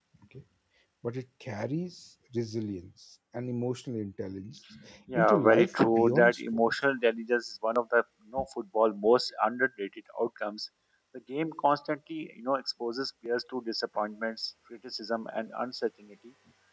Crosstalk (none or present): present